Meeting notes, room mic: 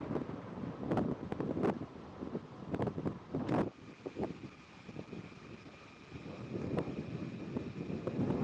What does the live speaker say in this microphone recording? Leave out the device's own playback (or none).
none